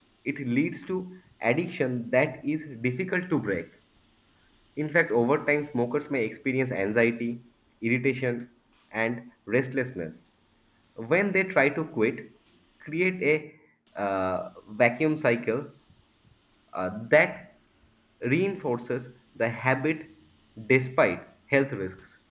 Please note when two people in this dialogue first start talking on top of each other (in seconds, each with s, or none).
none